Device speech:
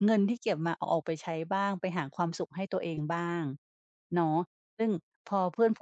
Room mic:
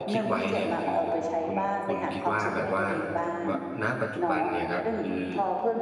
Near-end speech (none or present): present